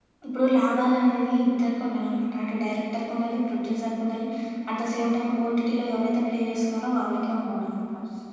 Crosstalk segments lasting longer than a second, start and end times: none

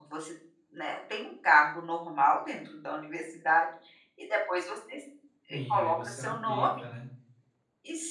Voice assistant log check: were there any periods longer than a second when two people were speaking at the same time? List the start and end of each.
5.5-6.8

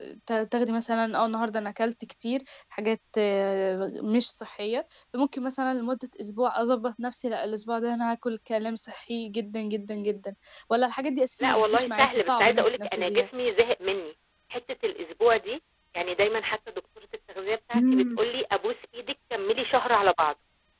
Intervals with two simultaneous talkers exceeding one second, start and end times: 11.4-13.3

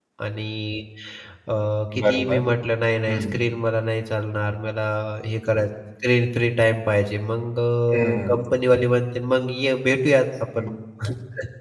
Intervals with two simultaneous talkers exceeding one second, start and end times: none

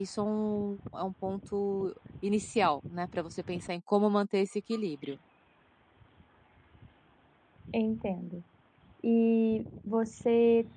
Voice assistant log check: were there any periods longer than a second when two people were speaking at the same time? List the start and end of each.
none

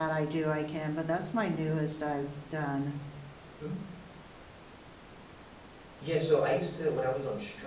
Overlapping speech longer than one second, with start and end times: none

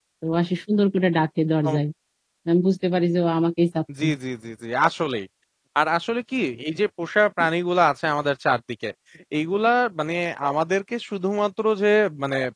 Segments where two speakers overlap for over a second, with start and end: none

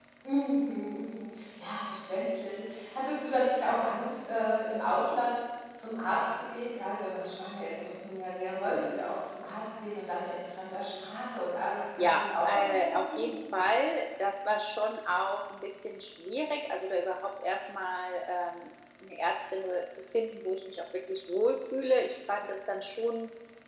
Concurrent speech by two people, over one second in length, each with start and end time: 12.0-13.3

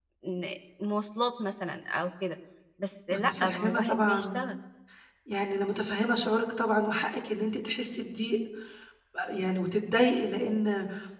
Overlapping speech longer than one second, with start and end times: 3.1-4.4

